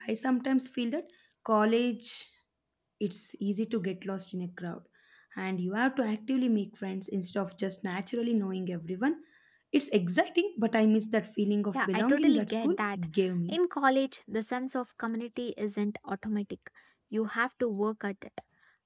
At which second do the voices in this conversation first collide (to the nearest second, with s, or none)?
12 s